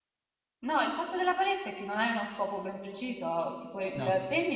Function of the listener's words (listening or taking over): listening